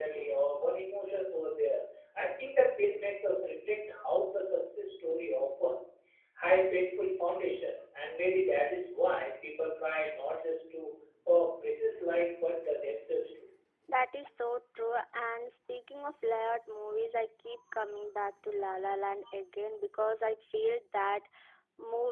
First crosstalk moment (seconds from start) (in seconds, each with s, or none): none